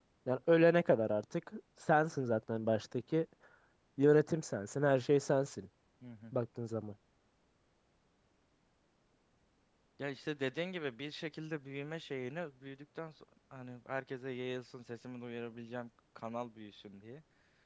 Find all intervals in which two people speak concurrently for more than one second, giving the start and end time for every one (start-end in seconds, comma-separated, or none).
none